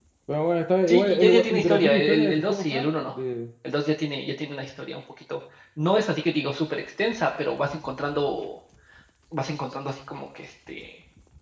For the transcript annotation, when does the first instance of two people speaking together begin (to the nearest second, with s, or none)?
1 s